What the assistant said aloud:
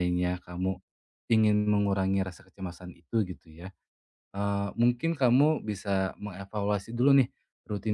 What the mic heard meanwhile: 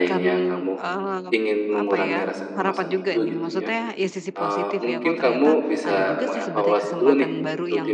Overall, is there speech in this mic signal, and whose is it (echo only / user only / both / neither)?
both